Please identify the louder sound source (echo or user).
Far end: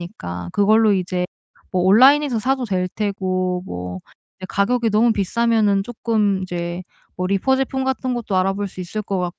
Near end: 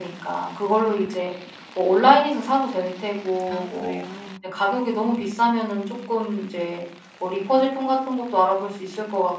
echo